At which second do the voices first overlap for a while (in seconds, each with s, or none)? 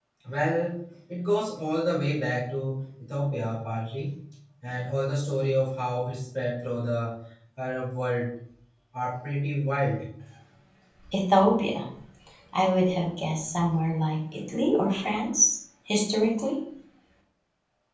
none